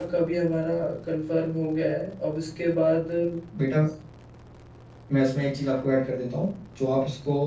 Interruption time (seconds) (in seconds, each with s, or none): none